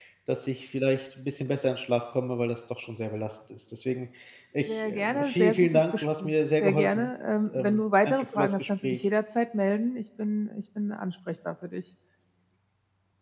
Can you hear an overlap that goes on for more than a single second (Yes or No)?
Yes